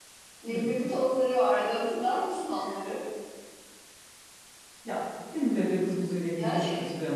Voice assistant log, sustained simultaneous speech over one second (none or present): none